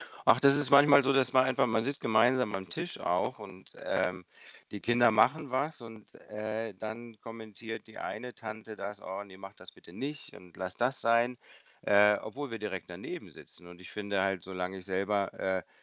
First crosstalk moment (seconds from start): none

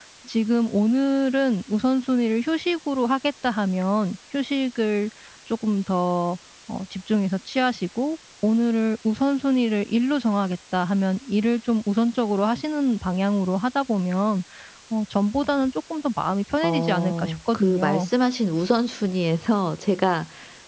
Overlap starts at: 16.6 s

